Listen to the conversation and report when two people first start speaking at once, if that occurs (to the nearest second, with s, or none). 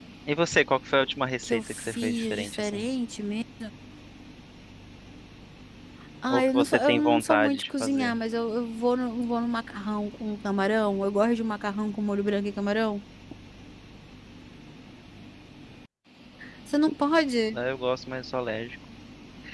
1 s